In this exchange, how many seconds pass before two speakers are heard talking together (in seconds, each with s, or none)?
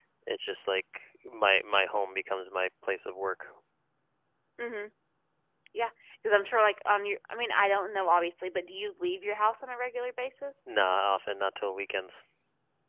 none